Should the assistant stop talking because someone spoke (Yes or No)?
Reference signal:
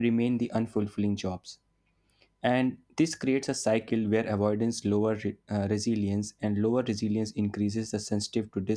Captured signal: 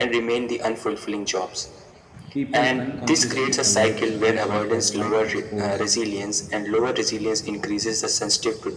Yes